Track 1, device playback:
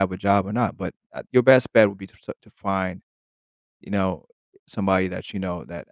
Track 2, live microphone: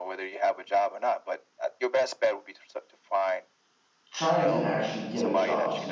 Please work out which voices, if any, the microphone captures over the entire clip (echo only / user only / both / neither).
both